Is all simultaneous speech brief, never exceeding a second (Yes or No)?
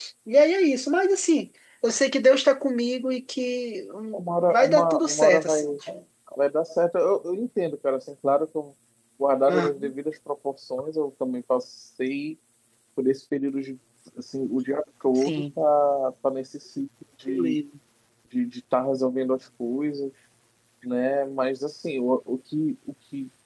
No